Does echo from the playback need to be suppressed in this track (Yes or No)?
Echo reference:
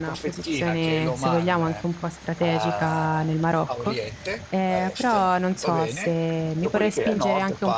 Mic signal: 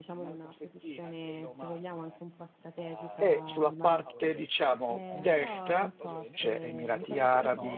Yes